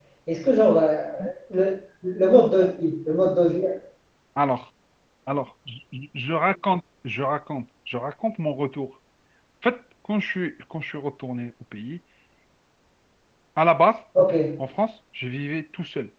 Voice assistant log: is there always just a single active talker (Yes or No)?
Yes